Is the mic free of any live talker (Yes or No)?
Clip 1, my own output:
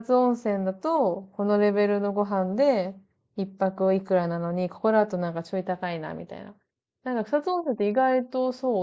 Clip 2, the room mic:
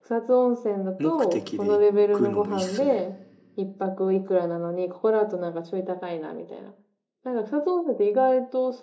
No